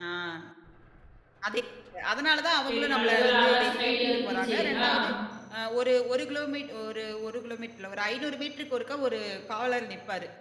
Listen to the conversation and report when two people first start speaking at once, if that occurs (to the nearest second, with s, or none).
3 s